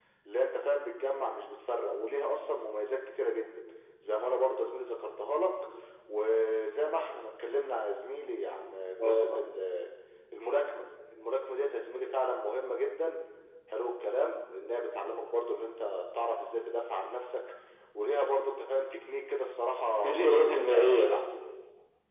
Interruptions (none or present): present